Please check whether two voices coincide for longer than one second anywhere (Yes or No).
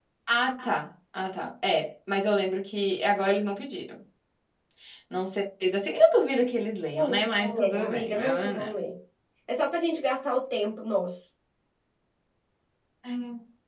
Yes